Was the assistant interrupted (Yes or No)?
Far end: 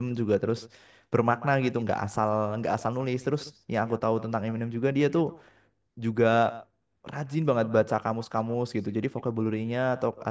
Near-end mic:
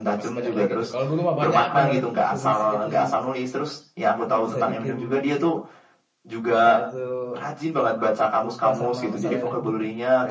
Yes